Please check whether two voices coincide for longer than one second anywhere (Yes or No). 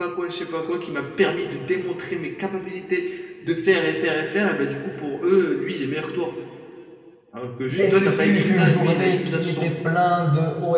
Yes